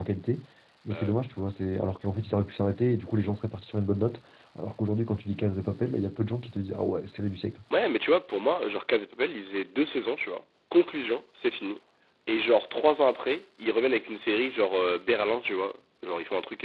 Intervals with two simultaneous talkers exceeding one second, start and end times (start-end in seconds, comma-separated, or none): none